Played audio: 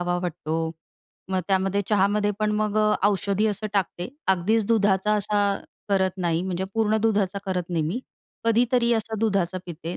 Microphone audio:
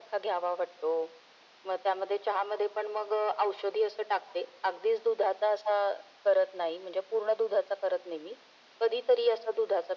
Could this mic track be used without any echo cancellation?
No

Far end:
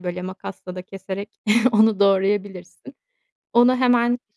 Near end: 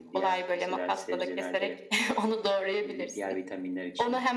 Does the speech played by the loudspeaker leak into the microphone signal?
Yes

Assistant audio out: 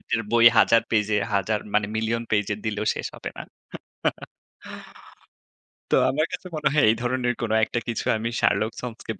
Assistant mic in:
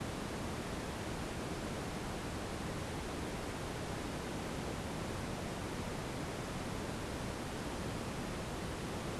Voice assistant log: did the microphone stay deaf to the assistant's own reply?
Yes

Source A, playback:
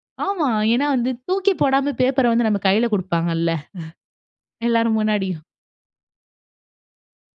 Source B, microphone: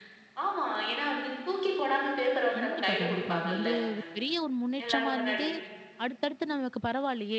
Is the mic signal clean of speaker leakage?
No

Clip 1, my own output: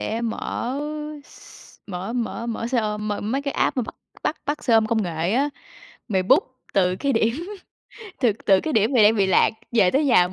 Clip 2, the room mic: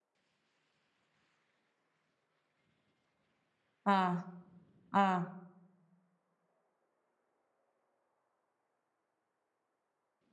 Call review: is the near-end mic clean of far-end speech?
Yes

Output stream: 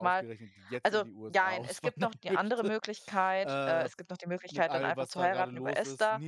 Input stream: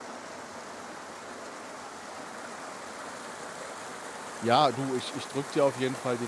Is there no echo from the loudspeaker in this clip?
Yes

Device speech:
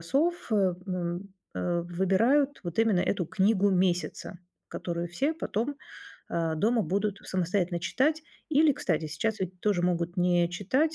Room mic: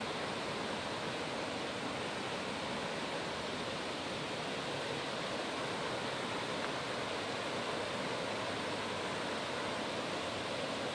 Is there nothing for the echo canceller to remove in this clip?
Yes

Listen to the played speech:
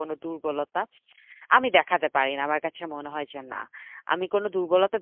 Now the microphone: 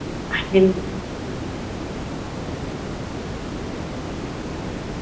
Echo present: No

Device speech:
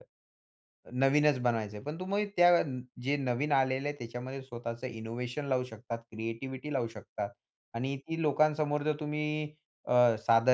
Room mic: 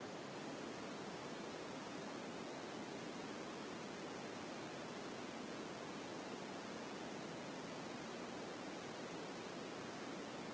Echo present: No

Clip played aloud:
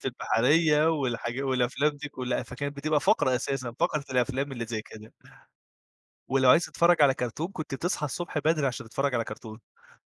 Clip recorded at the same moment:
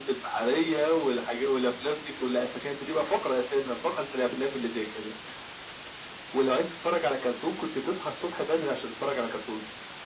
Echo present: Yes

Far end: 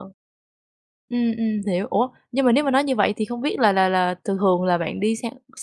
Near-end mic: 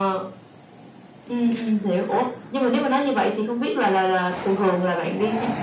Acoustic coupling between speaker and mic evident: Yes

